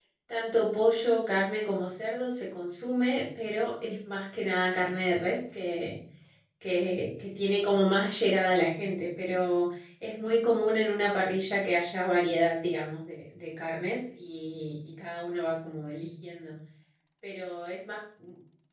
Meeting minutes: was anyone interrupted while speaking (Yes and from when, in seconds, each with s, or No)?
No